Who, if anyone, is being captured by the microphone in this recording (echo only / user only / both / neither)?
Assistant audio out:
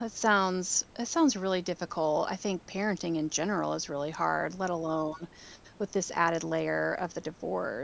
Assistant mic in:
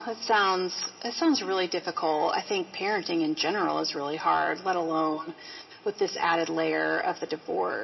echo only